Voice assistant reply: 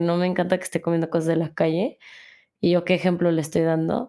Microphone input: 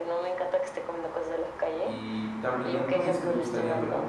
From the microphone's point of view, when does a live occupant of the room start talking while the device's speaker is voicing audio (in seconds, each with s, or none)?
1.8 s